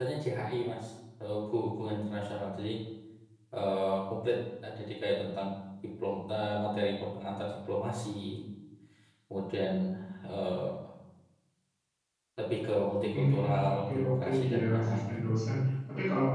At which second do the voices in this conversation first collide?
13 s

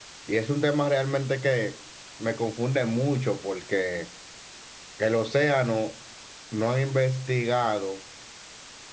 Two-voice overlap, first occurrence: none

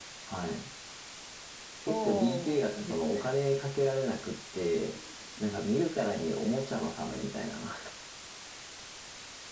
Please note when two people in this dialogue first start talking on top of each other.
2 s

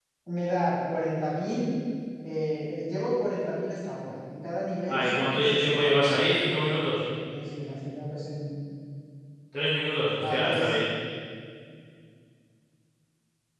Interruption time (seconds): 5 s

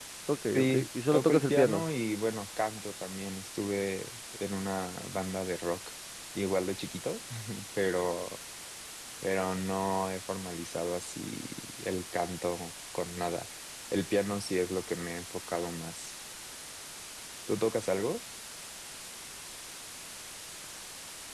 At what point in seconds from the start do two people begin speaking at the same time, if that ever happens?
1 s

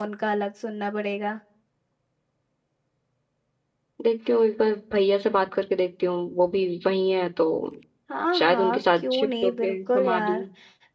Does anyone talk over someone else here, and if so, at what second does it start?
8 s

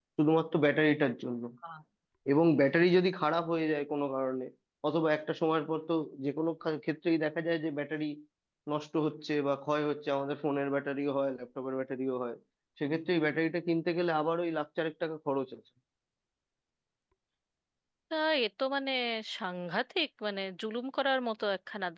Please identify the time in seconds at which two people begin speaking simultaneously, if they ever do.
none

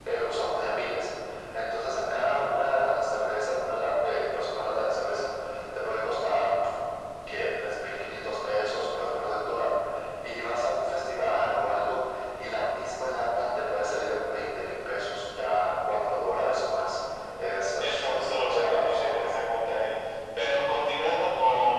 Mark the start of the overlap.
18 s

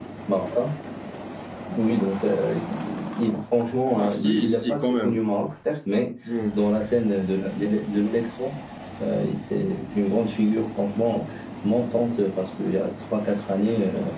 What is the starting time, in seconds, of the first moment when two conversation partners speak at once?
4 s

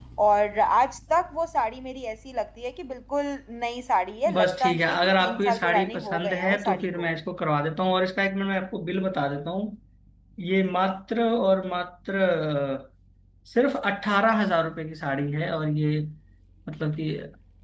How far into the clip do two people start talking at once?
4 s

